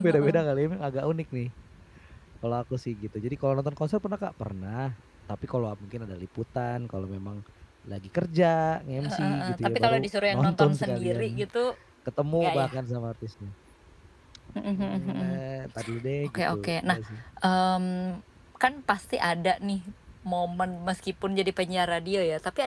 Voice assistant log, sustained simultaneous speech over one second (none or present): present